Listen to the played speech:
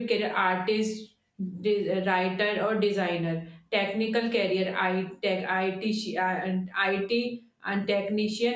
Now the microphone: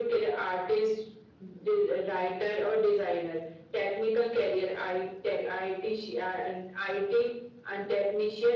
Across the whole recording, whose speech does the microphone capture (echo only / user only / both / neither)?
echo only